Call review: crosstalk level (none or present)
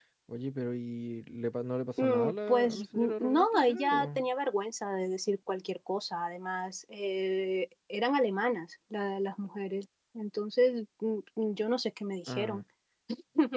present